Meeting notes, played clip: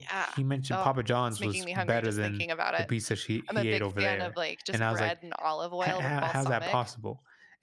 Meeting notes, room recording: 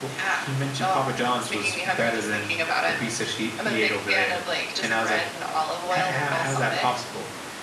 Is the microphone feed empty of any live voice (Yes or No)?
Yes